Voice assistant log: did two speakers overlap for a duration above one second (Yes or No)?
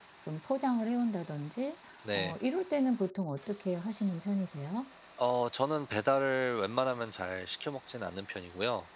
No